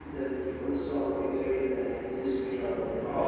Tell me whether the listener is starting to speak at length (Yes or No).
Yes